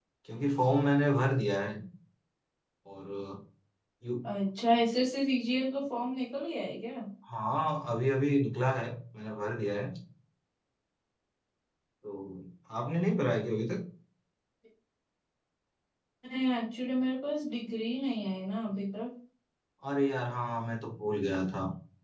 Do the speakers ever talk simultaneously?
No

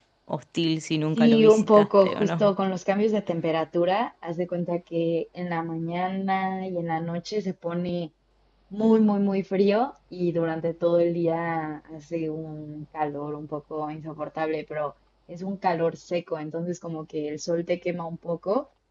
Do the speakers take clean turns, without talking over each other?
No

